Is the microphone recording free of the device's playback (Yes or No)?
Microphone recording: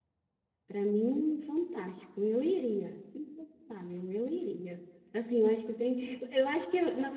Yes